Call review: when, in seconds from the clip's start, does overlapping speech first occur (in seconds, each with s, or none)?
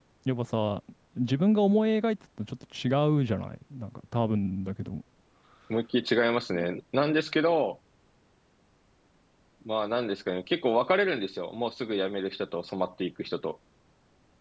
none